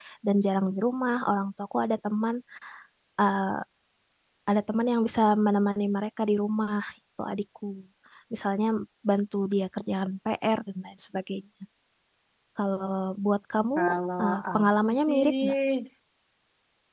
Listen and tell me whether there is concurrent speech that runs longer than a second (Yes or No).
Yes